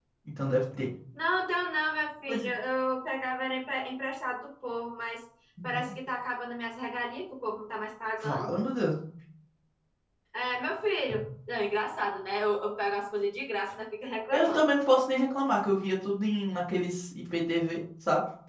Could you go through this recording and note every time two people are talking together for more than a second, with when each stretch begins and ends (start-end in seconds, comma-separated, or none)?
none